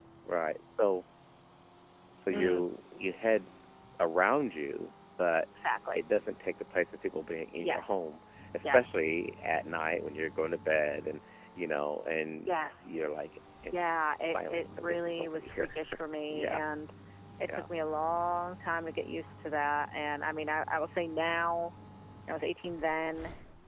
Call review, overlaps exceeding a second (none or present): present